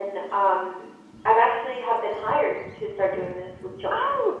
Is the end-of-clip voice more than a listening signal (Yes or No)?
Yes